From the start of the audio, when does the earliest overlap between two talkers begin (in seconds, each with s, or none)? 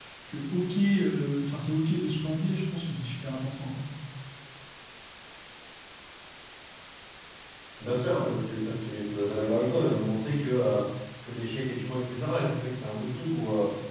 none